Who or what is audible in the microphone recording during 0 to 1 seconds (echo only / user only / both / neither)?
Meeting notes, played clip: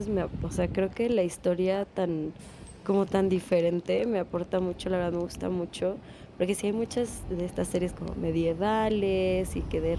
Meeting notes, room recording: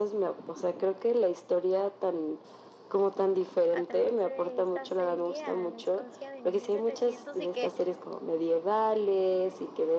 echo only